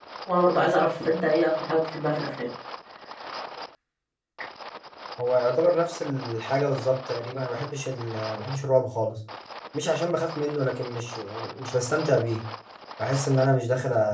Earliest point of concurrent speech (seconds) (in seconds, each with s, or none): none